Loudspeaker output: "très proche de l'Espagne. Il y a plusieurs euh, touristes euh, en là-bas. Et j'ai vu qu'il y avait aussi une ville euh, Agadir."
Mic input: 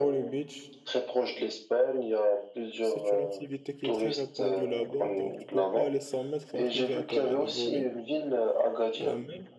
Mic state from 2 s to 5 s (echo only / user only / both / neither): both